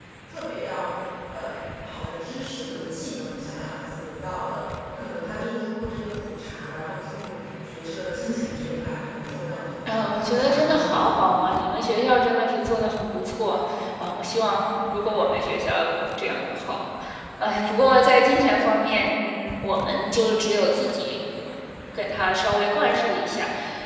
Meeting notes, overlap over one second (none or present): present